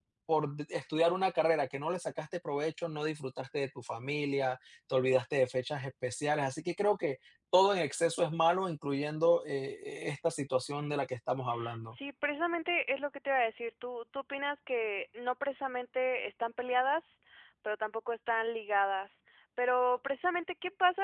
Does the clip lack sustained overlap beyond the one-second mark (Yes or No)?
Yes